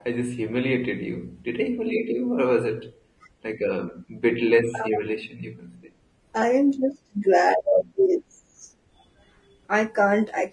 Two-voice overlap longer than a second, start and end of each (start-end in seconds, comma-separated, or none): none